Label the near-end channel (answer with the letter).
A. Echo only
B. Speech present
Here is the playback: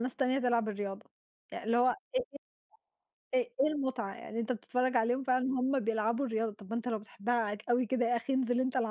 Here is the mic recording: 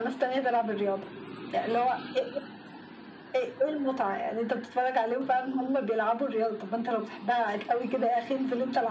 A